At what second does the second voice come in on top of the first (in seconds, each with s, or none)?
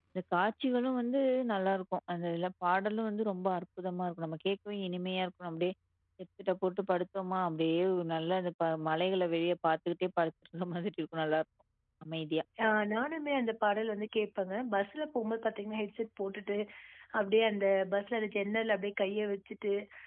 none